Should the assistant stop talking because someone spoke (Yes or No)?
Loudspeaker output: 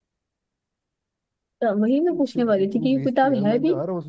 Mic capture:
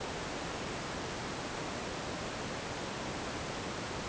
No